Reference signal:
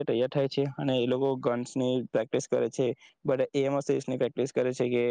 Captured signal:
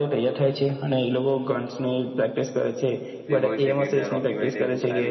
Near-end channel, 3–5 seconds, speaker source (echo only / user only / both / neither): both